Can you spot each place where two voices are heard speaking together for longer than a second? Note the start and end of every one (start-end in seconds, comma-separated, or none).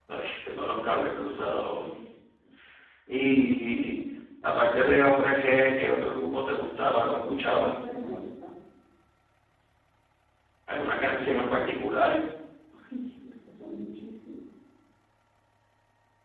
none